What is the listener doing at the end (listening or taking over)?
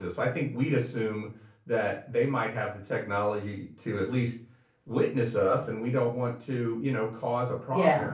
listening